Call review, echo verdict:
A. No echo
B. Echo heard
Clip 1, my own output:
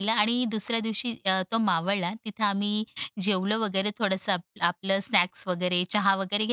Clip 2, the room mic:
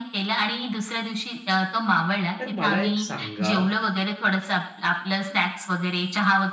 B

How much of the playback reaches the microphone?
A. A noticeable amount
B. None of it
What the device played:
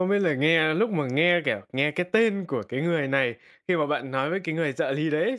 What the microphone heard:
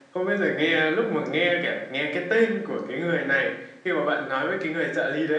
A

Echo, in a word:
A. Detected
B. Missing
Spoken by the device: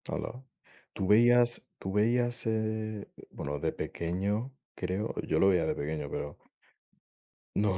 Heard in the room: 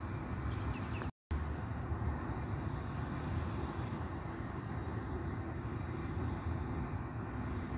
B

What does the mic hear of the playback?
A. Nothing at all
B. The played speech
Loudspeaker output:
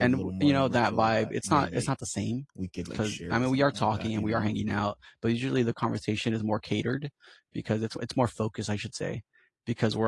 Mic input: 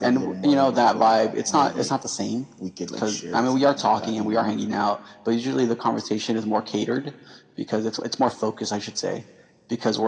B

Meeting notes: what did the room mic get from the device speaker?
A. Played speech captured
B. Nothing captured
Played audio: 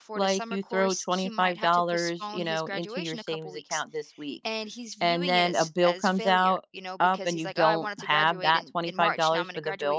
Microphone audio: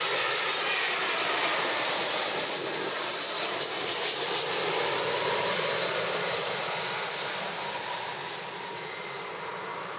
B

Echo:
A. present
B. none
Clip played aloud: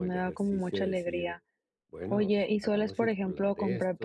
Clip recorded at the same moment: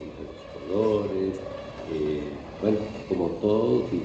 B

